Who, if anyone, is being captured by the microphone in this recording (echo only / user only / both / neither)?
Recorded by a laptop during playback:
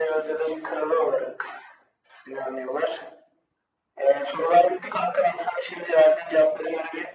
echo only